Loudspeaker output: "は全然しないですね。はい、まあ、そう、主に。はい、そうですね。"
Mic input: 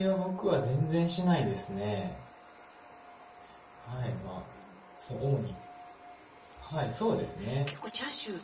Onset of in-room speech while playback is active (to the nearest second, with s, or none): 7 s